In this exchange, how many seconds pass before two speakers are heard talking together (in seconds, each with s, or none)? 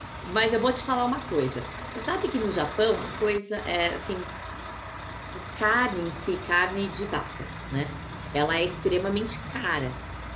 none